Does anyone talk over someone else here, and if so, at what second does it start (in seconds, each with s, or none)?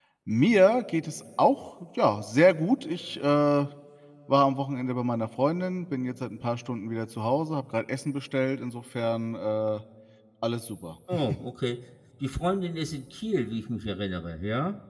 none